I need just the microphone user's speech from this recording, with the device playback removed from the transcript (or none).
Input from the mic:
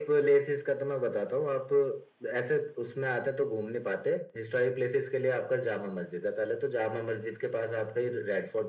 none